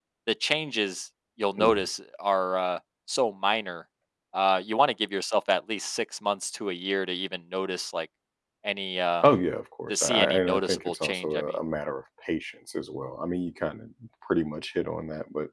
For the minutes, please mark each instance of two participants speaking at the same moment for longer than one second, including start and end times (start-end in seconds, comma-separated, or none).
9.9-11.4